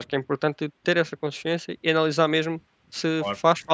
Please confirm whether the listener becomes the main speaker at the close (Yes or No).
No